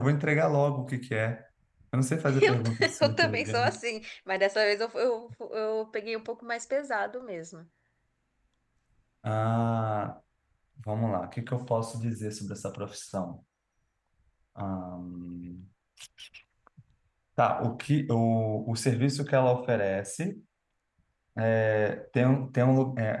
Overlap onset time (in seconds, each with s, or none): 2.4 s